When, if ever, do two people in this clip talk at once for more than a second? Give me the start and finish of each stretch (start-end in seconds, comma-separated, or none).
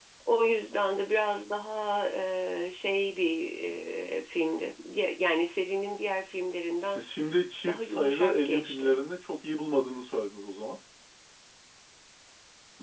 7.7-9.0